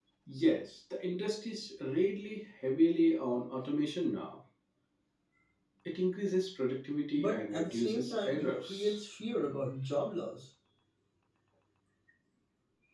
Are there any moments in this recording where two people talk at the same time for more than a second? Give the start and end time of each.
7.2-9.0

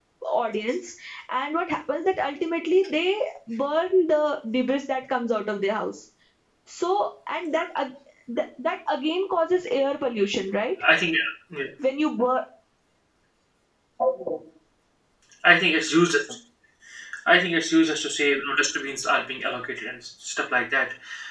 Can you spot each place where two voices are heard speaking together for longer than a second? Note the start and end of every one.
none

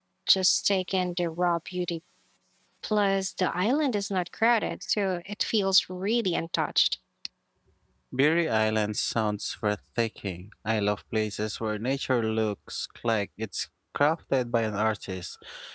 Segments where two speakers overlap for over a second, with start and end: none

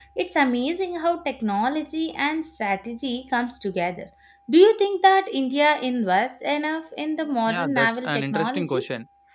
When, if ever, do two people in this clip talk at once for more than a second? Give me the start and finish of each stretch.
7.5-8.8

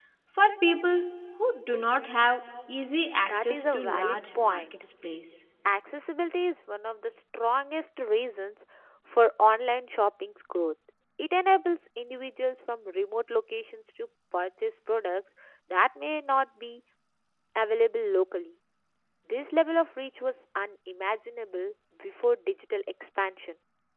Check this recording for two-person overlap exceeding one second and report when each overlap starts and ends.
3.2-4.6

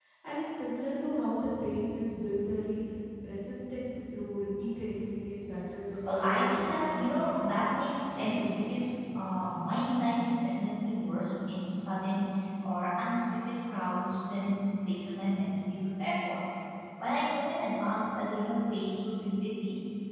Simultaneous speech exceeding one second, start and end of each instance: 6.1-7.5

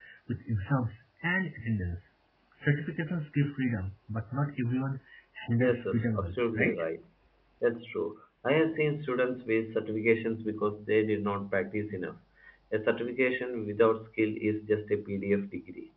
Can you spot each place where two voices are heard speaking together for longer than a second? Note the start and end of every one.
5.6-6.8

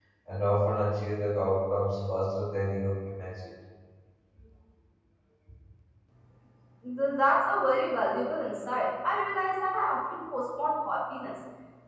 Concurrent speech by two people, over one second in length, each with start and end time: none

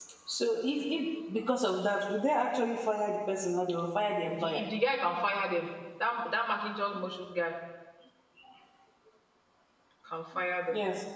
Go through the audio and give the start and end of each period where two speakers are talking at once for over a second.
none

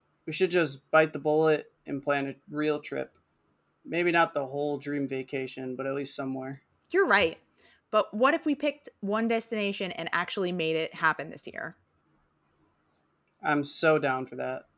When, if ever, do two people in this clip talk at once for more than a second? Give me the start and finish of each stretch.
none

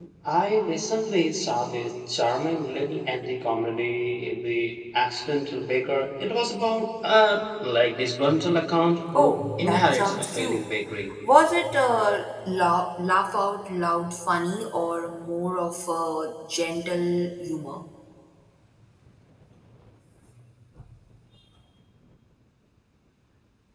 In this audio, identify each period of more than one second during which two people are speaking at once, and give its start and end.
9.2-10.6

